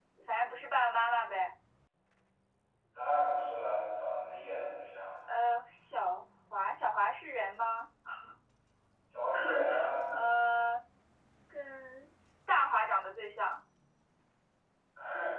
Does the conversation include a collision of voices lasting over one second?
No

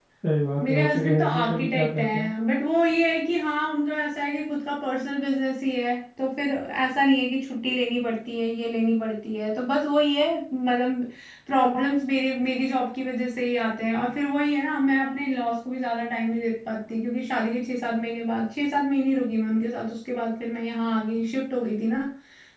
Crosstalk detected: Yes, from 0.7 s

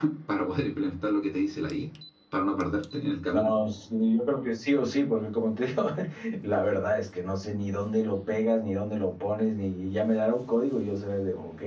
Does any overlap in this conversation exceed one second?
No

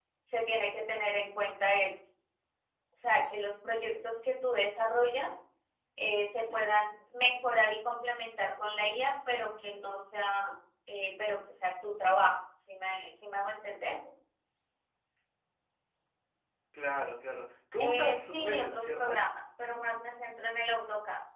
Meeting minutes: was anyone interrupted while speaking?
Yes, from 17.8 s

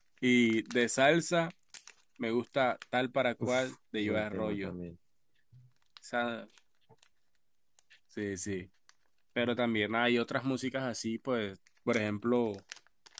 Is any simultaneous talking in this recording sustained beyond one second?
Yes, from 3.4 s

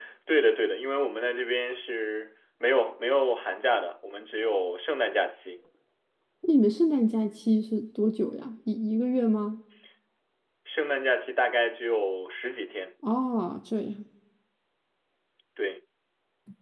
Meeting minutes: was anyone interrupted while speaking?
No

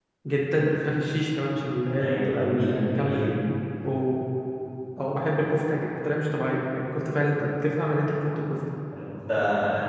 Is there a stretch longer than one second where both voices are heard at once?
Yes, from 2.0 s

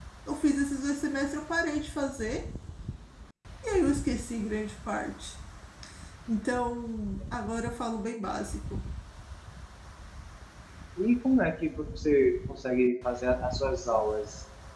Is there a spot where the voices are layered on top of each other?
No

